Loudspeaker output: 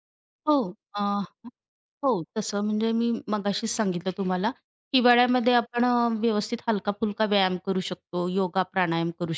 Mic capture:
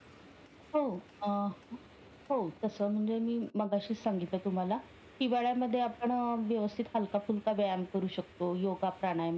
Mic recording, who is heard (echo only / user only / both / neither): echo only